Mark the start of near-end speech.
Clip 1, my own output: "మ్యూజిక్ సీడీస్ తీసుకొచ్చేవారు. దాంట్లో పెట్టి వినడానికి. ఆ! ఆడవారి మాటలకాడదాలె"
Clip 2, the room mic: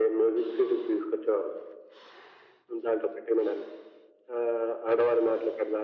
none

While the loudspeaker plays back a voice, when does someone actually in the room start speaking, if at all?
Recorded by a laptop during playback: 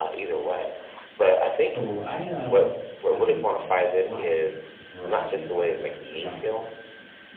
1.6 s

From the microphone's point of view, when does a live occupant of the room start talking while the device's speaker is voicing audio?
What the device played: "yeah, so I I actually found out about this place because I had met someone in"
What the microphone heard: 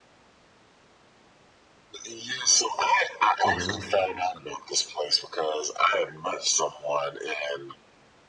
3.4 s

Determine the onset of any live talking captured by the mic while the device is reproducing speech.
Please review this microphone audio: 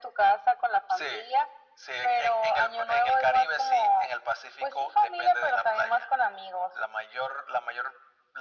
none

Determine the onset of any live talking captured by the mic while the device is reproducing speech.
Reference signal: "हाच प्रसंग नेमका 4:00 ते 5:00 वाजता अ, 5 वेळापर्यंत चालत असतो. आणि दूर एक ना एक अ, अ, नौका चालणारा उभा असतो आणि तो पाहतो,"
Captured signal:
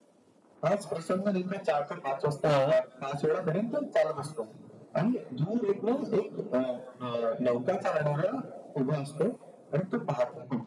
2.4 s

